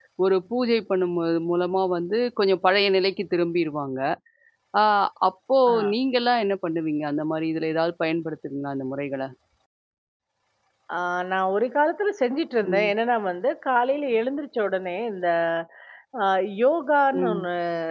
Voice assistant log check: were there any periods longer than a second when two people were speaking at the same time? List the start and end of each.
none

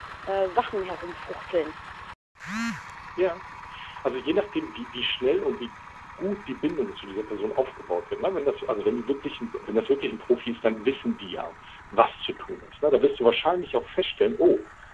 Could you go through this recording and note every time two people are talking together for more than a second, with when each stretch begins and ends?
none

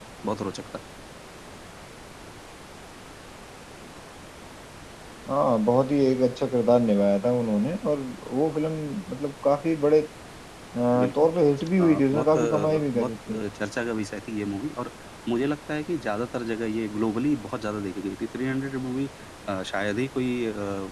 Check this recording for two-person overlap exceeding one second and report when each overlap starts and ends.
11.8-13.4

